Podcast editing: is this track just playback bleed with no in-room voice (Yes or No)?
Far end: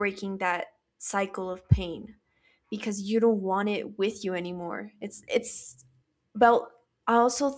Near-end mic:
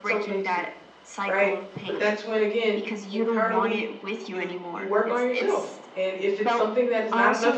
No